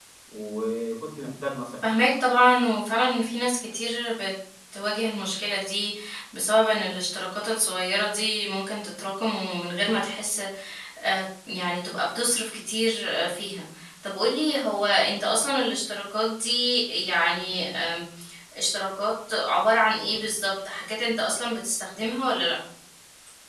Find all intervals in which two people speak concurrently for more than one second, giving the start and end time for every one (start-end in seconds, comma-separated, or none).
none